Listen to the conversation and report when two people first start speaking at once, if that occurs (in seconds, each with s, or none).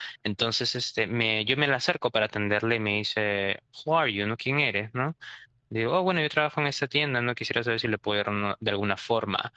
none